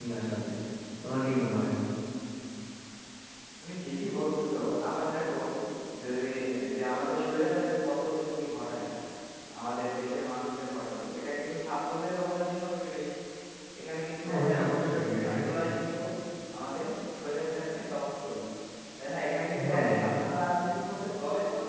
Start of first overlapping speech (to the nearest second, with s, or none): 14 s